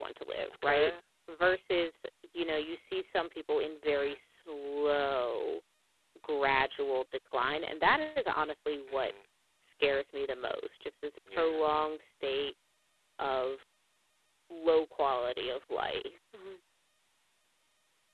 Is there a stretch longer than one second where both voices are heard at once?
No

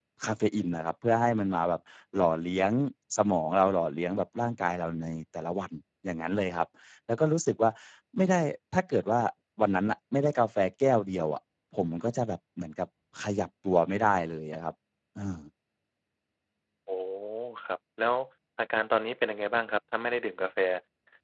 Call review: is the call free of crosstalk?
Yes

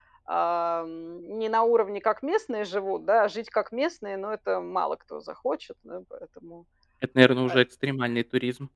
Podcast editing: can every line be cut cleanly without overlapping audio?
Yes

